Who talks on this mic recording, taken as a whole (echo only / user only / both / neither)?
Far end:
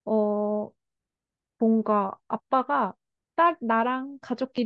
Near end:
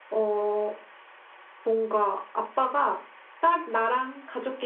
echo only